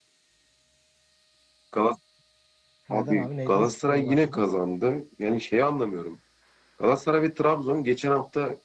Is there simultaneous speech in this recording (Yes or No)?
Yes